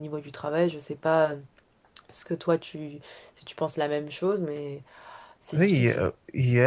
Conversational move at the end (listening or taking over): taking over